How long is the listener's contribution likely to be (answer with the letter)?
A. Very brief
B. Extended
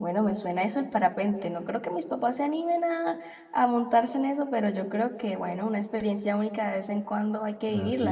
B